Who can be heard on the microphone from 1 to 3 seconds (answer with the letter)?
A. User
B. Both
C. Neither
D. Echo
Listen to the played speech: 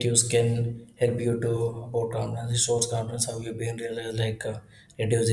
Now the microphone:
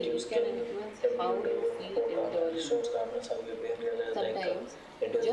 B